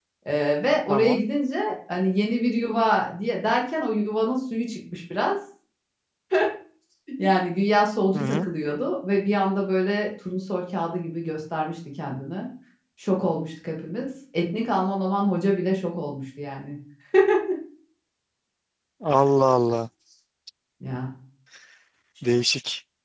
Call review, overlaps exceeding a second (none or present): none